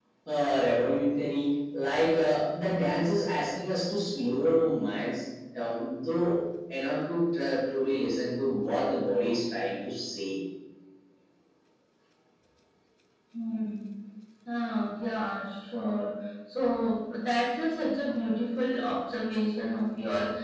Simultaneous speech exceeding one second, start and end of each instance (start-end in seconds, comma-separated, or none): none